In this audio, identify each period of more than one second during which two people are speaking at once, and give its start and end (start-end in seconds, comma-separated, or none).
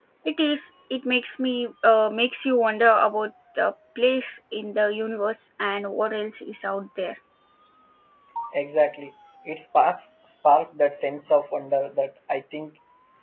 none